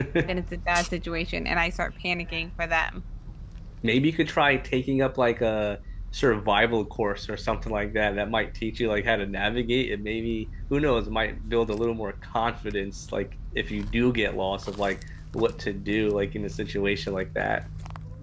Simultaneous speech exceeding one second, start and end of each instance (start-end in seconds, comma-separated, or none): none